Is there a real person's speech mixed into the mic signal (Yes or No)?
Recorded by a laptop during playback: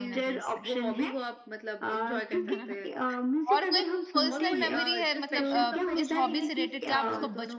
Yes